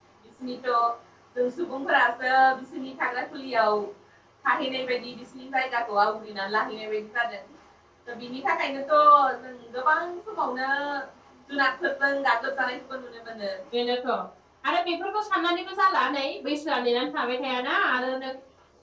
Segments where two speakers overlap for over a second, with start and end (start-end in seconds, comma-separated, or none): none